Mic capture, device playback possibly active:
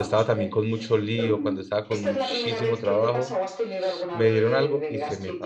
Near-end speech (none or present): present